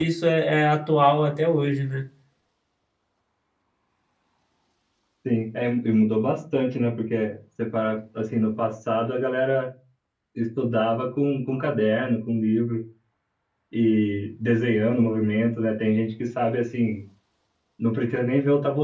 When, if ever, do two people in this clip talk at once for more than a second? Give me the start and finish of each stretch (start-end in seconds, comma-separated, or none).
none